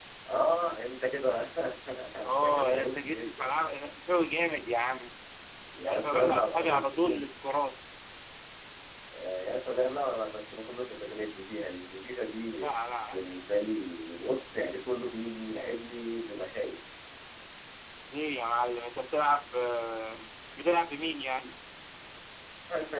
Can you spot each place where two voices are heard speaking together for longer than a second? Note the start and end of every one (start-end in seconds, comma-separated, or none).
2.2-3.9, 5.8-7.4